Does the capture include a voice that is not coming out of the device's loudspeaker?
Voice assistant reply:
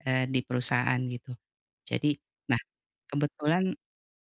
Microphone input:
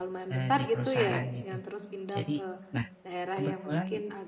Yes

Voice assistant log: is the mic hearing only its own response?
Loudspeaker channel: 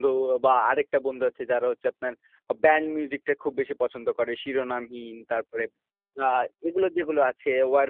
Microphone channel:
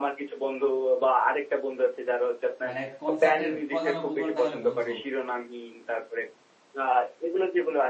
No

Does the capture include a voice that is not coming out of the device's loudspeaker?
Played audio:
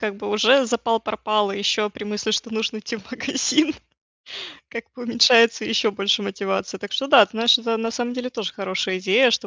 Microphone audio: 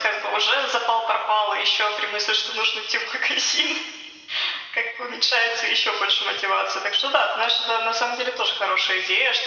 No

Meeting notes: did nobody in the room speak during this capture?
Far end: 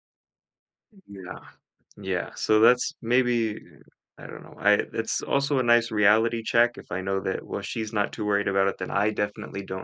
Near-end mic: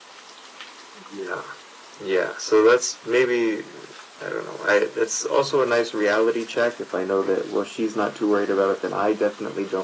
Yes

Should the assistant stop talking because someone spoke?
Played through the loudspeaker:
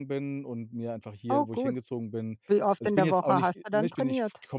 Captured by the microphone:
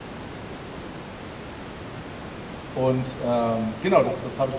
Yes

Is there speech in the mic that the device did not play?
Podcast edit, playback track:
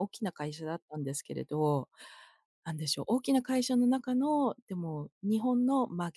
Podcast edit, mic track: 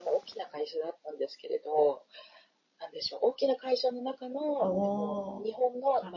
Yes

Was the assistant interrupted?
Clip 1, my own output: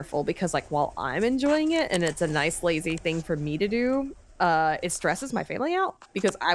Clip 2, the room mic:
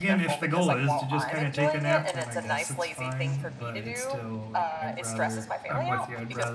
Yes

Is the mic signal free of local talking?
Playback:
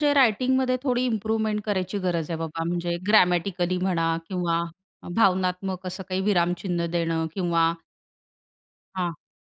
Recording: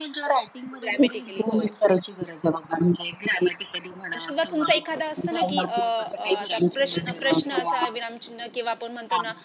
No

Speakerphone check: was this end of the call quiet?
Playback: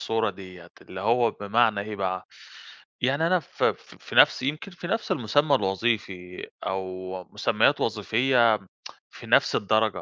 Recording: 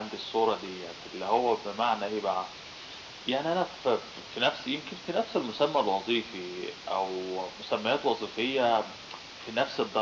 Yes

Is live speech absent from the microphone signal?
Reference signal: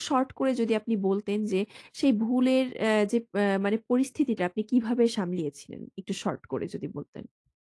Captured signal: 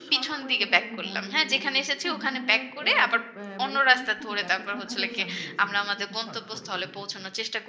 No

